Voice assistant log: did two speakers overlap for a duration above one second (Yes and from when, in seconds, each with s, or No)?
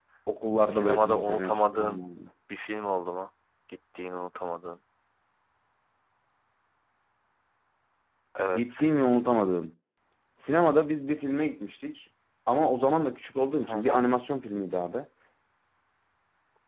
Yes, from 0.7 s